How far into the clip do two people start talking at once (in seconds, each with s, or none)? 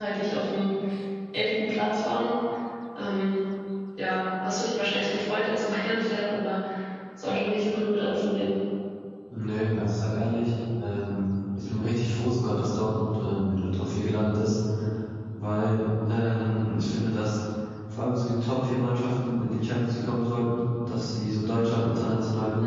none